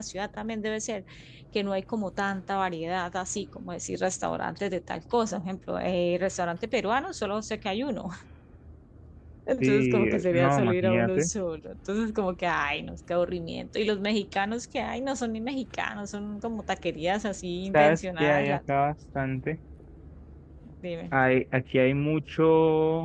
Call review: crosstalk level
present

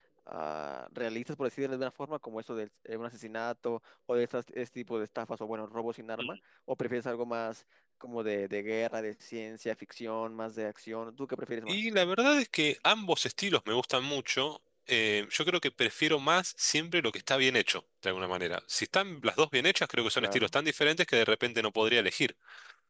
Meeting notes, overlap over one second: none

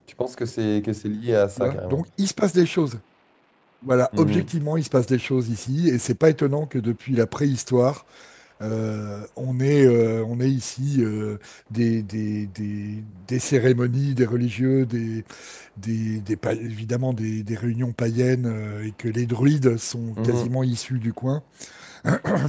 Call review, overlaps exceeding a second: none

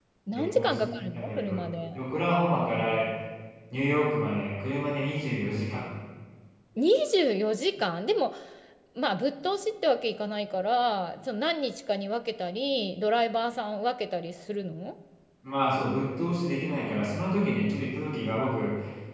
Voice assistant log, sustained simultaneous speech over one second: present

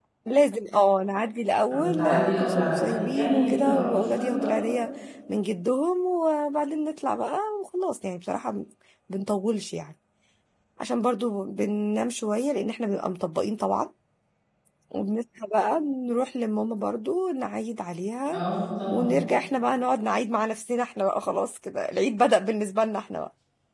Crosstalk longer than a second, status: present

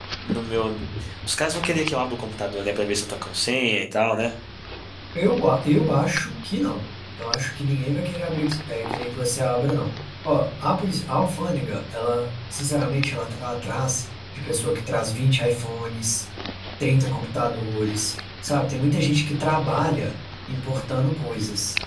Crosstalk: none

